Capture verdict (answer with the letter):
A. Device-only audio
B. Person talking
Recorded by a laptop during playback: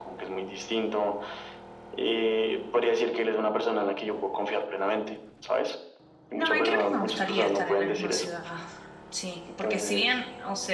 B